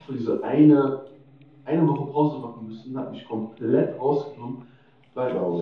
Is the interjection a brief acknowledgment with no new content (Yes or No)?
Yes